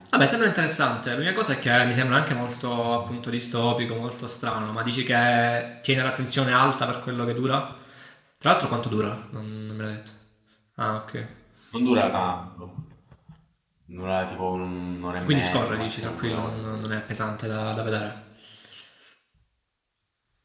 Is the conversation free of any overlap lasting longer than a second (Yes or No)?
No